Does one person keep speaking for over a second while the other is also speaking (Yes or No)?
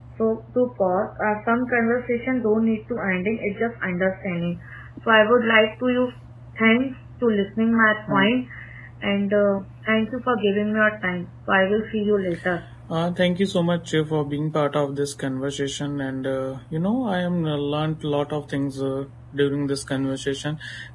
No